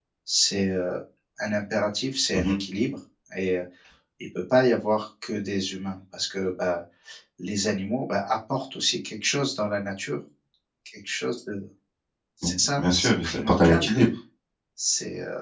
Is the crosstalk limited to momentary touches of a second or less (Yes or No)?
No